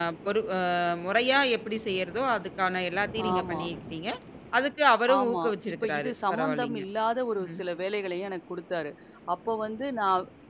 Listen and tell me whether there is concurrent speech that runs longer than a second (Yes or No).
Yes